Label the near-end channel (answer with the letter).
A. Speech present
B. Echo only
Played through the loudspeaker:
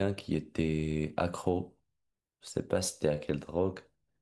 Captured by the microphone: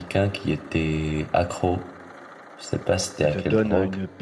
A